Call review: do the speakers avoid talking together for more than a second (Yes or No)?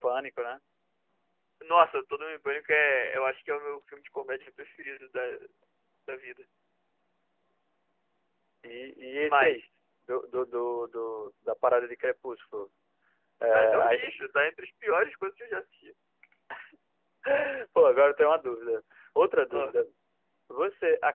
Yes